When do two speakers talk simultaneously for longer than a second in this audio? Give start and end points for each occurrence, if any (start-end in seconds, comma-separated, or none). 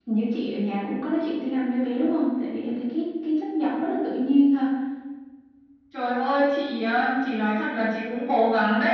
none